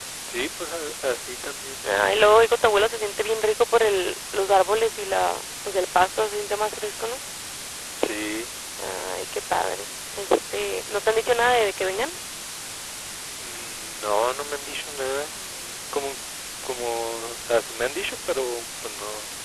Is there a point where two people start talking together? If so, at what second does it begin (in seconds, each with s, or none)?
none